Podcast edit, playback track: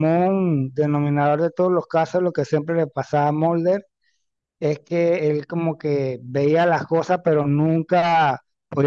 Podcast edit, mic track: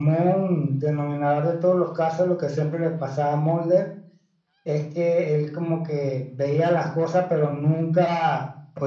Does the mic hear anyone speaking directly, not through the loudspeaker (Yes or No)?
No